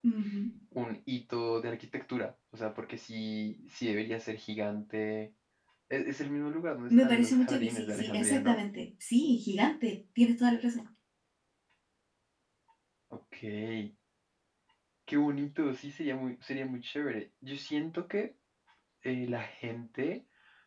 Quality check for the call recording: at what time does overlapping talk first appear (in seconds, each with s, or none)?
6.9 s